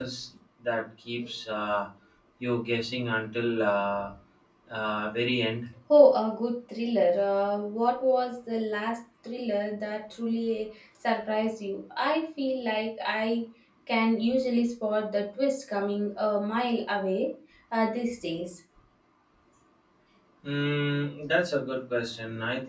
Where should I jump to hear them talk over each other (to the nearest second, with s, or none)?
none